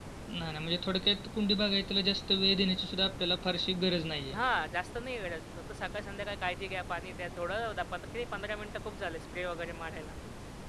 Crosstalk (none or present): none